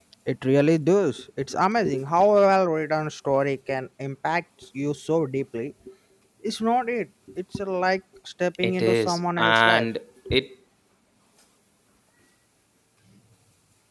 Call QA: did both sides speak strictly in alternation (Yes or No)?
No